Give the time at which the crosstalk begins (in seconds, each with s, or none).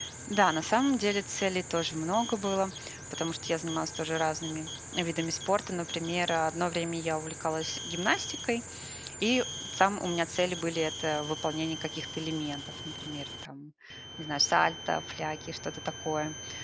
none